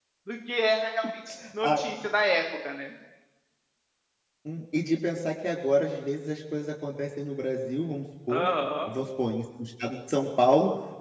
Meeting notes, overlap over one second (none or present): none